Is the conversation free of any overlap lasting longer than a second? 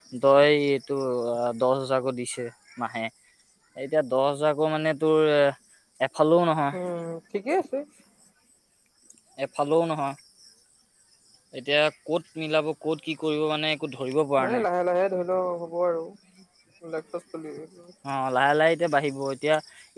Yes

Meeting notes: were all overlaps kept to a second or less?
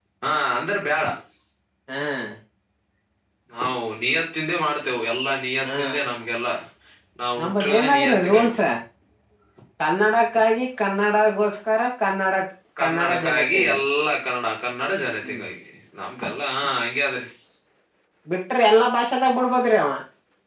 No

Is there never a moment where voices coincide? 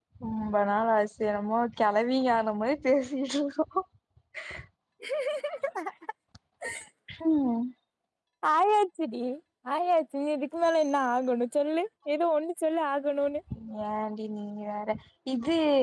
Yes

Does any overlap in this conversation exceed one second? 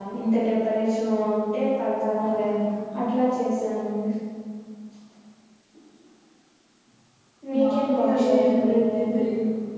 Yes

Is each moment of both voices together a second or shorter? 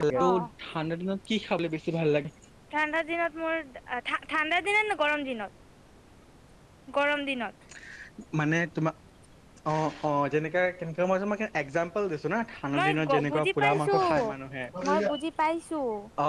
No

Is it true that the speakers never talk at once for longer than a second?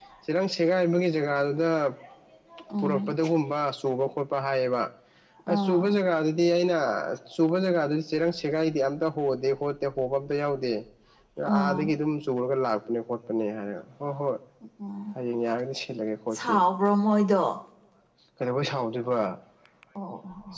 Yes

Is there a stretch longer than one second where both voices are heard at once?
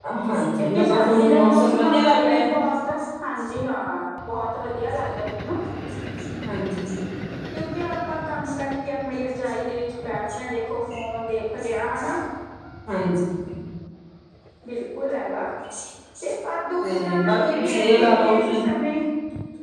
Yes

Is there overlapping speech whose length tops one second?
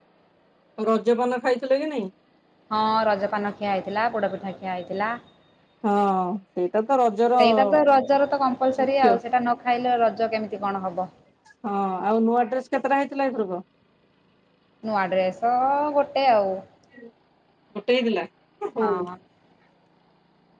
No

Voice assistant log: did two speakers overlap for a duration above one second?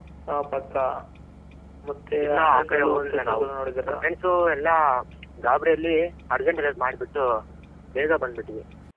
Yes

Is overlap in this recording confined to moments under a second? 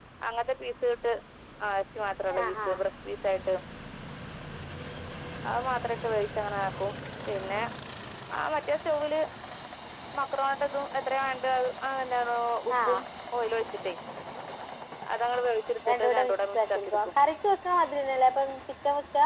No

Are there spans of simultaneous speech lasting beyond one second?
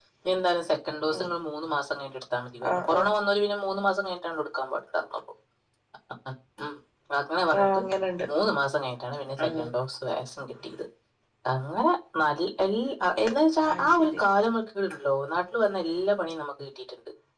No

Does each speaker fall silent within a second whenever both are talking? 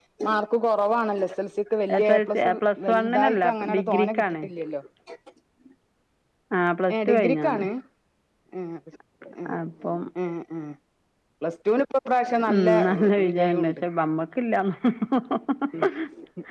No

